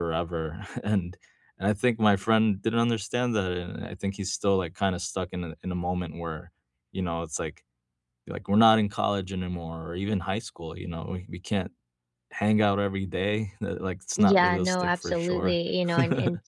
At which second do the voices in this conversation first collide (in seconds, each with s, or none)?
14.2 s